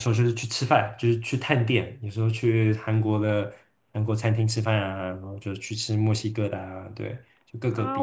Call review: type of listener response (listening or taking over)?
taking over